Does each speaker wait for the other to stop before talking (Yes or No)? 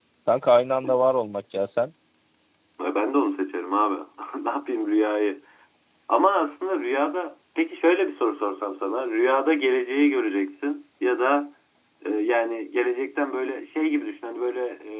Yes